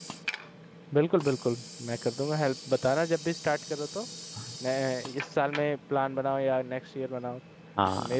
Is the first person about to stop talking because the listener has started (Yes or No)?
Yes